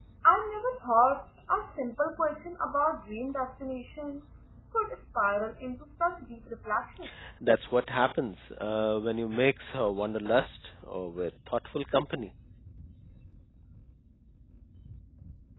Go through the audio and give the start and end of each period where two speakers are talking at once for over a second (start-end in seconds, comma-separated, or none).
none